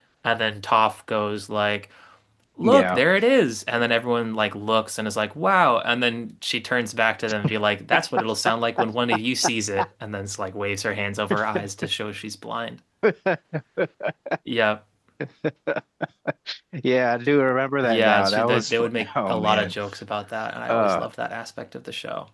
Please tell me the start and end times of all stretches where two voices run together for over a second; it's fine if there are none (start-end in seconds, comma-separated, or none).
17.8-19.7